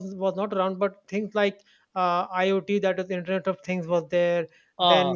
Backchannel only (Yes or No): Yes